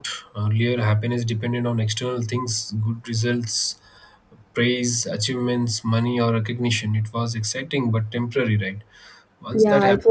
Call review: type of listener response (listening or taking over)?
taking over